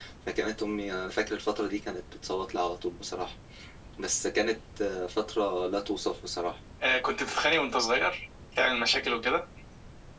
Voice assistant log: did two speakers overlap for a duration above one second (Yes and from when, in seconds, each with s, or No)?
No